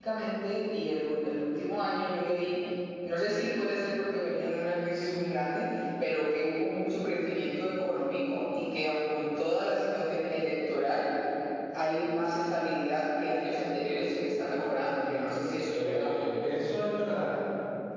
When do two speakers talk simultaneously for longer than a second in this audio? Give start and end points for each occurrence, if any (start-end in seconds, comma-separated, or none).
none